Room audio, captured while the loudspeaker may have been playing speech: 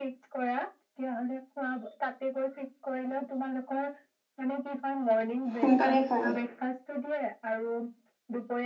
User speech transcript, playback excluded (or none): সোনকালে পায়